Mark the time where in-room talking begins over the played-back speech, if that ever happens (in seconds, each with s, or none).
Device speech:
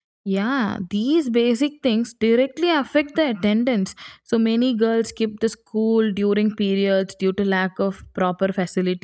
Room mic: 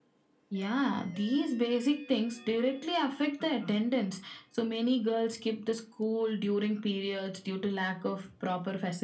none